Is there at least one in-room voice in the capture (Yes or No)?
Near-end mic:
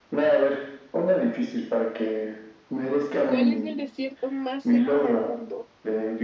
Yes